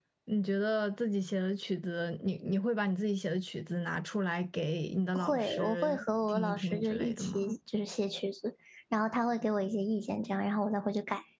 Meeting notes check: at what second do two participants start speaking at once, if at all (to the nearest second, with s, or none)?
5 s